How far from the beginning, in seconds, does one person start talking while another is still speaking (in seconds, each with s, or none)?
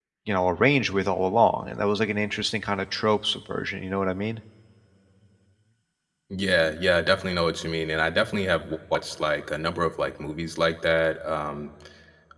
none